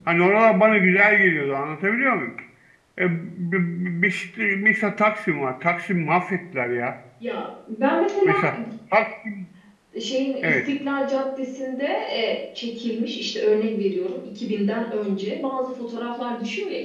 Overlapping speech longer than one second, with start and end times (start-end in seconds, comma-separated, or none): none